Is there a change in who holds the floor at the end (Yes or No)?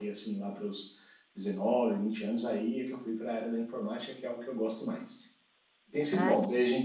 No